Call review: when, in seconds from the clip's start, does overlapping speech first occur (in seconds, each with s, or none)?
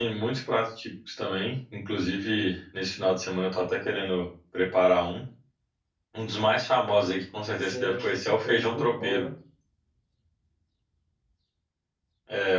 7.6 s